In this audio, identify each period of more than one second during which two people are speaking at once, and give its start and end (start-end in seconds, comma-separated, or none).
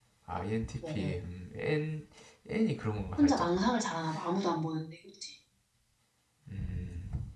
none